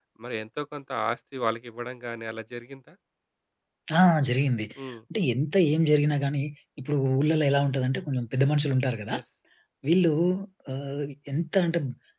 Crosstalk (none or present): none